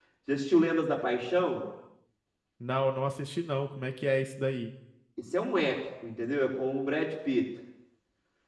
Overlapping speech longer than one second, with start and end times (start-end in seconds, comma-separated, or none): none